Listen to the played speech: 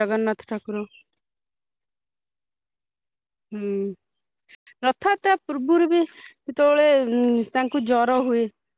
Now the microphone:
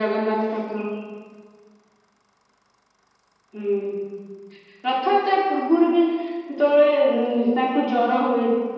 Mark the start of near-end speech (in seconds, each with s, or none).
none